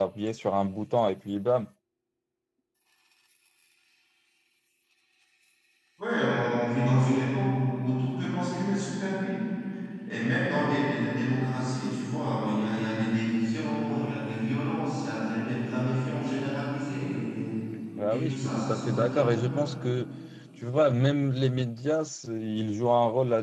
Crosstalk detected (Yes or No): Yes